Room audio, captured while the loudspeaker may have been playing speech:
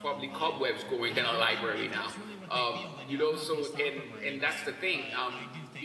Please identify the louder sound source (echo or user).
user